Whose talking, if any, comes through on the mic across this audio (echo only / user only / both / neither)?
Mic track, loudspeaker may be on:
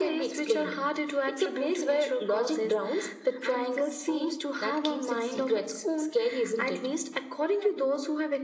both